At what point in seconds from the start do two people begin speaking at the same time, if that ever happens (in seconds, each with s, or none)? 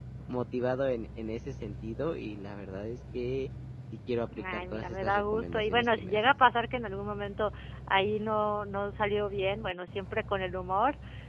4.4 s